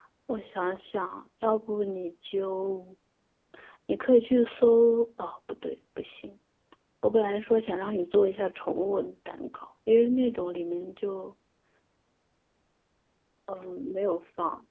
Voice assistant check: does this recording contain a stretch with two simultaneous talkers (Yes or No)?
No